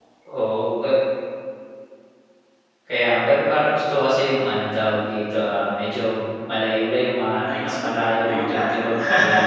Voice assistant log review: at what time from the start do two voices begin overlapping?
7 s

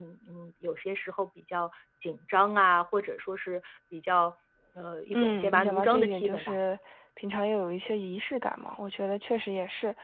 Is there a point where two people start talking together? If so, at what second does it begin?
5 s

